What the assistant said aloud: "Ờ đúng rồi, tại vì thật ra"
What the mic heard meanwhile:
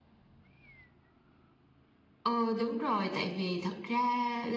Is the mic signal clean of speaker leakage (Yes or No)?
No